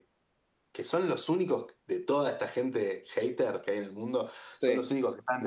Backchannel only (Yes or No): Yes